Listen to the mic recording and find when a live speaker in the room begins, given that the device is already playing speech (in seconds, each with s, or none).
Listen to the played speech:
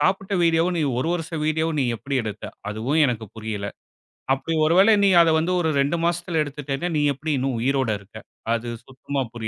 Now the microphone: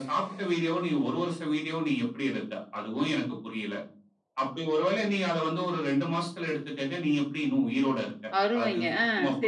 8.4 s